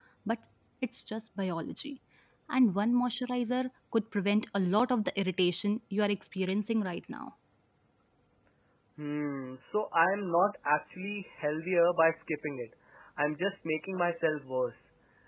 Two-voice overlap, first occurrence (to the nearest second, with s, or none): none